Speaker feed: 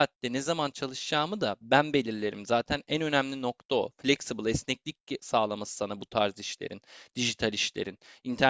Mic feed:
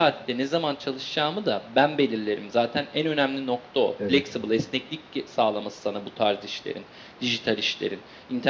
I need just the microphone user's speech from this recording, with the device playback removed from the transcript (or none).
evet